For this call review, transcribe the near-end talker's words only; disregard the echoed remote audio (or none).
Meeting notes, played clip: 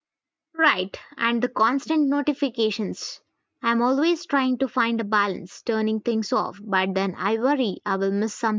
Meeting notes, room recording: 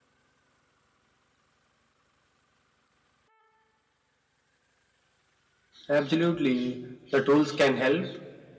Absolutely, the tools can help,